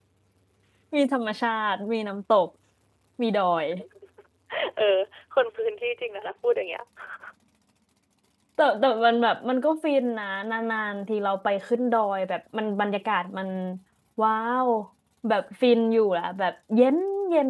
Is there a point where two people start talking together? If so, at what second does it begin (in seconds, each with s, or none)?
none